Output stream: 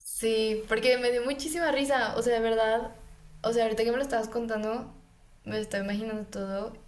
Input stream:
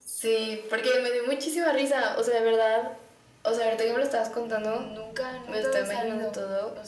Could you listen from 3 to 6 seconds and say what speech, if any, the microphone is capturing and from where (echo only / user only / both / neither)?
both